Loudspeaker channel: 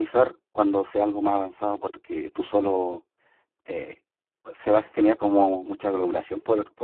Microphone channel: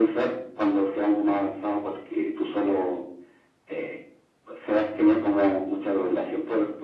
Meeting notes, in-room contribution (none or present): none